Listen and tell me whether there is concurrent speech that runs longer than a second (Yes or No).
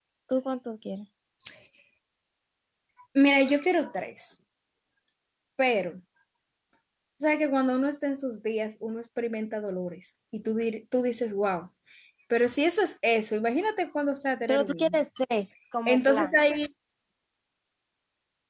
No